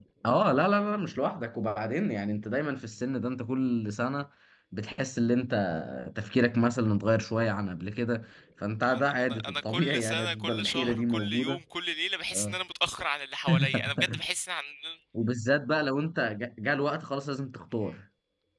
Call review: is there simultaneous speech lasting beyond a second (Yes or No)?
Yes